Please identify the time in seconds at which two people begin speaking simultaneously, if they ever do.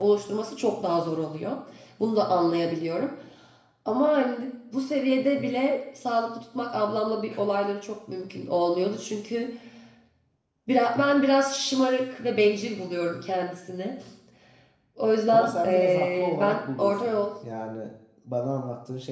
15.3 s

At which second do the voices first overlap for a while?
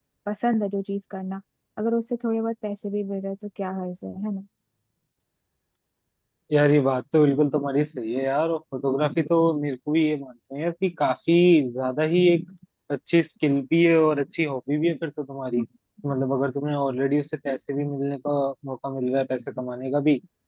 none

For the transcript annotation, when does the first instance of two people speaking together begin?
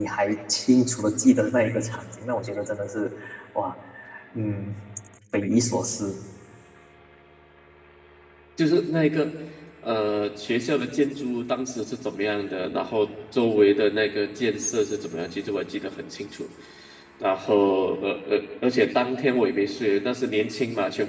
none

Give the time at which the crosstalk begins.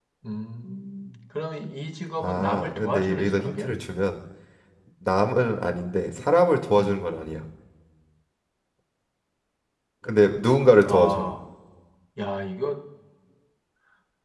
2.2 s

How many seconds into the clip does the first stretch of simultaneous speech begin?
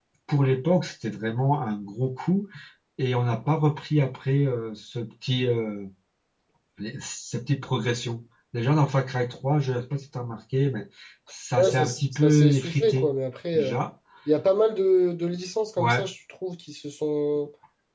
11.6 s

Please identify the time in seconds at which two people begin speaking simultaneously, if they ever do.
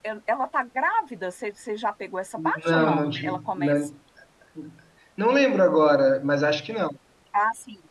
2.4 s

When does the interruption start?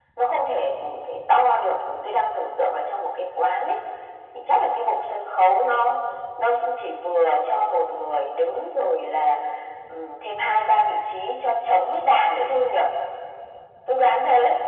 none

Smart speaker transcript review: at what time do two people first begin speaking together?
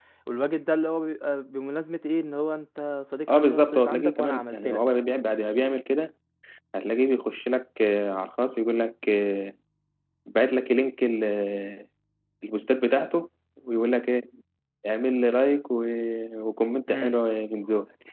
3.3 s

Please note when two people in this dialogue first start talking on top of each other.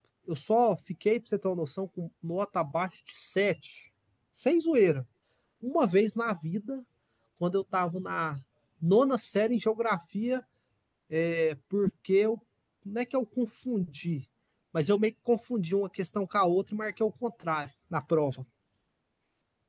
none

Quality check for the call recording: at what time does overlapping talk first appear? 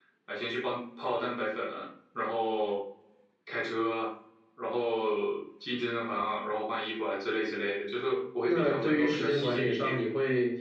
8.5 s

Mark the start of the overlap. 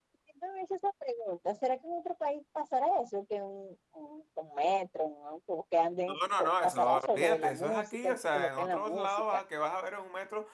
6.6 s

